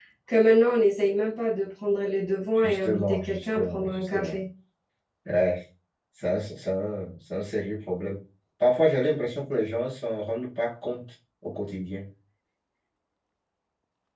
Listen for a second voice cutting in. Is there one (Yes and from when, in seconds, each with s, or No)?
Yes, from 2.6 s